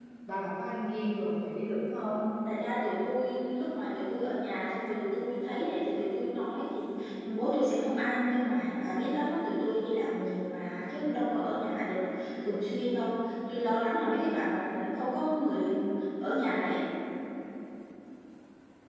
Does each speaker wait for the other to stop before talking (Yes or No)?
Yes